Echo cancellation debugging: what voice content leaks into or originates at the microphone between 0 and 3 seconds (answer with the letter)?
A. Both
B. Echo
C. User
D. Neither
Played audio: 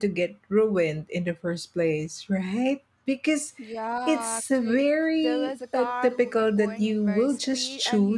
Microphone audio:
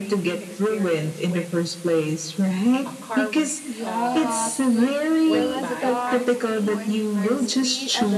A